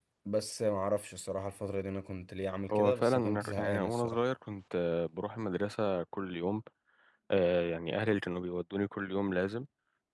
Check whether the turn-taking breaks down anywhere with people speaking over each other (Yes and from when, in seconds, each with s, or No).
Yes, from 2.7 s